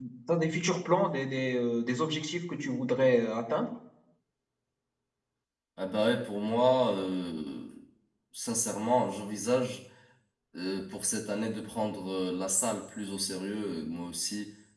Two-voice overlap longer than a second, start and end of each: none

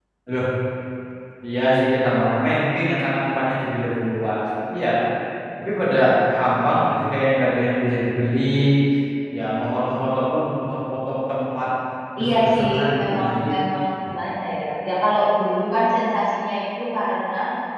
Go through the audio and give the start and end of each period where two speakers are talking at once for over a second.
12.2-13.5

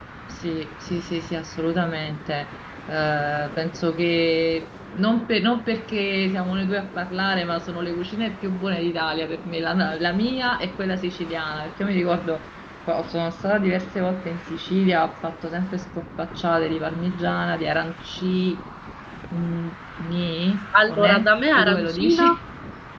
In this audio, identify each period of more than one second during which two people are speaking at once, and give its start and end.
20.9-22.3

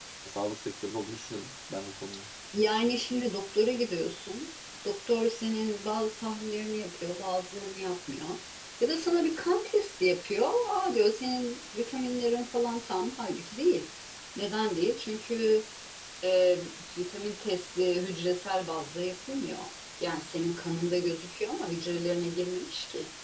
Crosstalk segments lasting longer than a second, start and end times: none

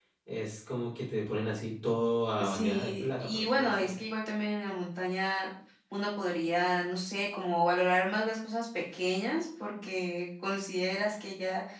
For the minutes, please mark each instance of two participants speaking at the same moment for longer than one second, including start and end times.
2.4-3.9

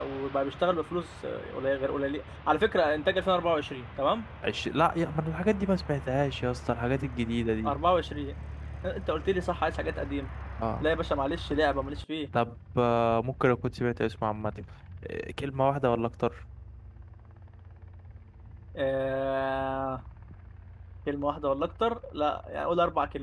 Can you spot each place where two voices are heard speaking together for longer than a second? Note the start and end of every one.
none

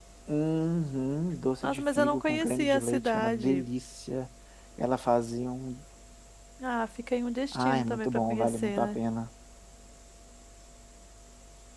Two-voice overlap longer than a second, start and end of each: 1.6-3.6, 7.5-9.0

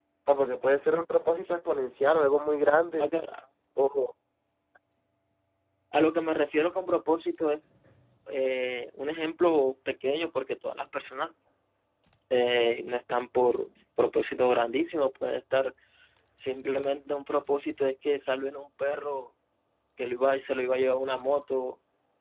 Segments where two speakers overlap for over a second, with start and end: none

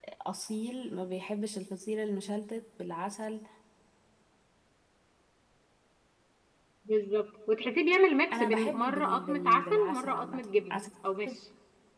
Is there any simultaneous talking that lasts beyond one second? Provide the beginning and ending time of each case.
8.3-10.8

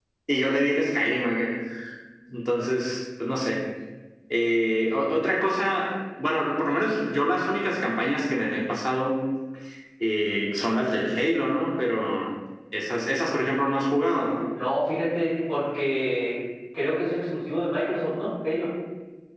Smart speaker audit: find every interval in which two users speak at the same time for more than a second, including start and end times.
none

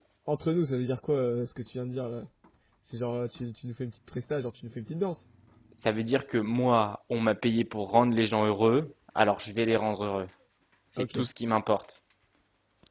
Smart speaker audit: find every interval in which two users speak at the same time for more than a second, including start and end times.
none

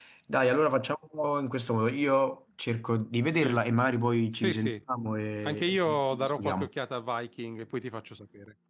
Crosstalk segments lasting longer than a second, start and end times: 5.4-6.7

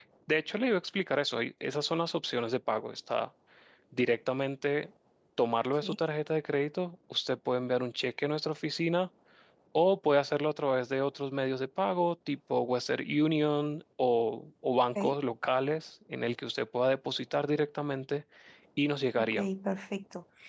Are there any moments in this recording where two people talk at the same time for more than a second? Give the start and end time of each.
none

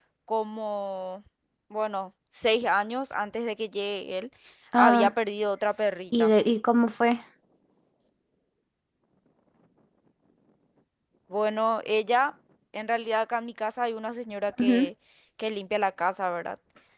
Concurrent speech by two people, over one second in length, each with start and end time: none

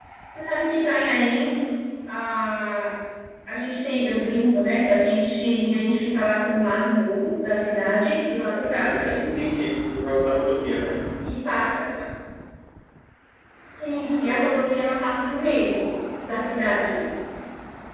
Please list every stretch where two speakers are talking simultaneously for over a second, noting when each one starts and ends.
none

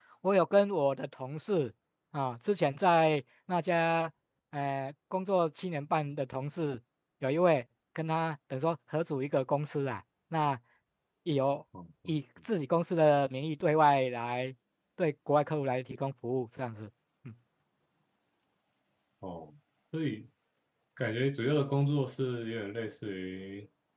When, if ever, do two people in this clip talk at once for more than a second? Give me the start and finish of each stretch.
none

